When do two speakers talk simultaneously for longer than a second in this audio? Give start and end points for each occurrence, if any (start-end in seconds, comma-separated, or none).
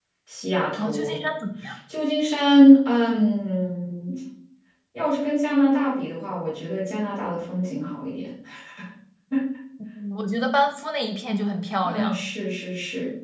none